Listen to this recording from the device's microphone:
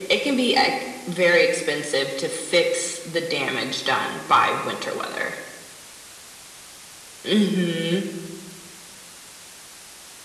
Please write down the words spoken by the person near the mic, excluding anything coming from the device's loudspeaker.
none

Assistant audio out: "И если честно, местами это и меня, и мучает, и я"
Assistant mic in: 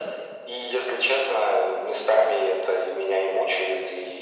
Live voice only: none

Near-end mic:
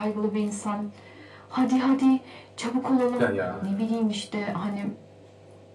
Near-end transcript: Güzel, ya.

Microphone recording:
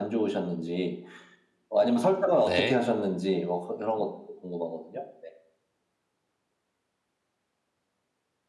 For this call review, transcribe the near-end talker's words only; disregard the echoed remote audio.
네.

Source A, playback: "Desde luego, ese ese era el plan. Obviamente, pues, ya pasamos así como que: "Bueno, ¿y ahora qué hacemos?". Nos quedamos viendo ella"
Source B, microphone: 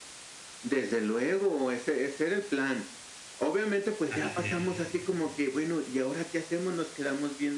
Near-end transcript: Así es.

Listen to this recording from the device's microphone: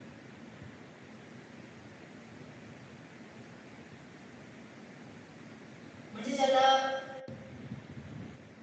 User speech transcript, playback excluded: म्हणजे ज्याला

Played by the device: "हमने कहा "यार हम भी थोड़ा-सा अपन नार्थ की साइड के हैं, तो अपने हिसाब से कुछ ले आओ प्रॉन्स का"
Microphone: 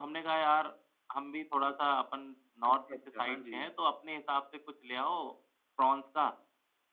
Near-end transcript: अच्छा, अच्छा। हाँ जी।

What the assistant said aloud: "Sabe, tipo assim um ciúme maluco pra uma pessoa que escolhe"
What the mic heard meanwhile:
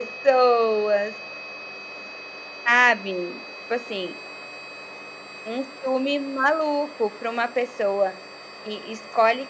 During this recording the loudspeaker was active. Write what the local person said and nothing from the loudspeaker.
none

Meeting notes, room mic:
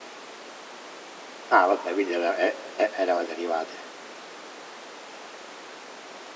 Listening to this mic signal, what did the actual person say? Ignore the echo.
Ah vabbè quindi era e e eravate arrivate.

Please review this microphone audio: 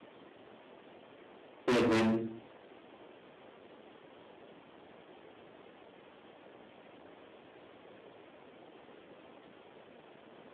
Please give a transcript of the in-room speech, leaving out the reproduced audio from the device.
Hı hı.

